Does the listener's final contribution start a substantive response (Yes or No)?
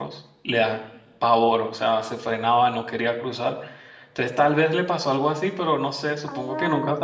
Yes